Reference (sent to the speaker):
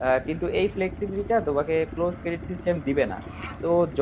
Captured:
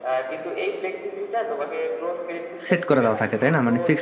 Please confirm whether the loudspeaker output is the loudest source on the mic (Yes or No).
No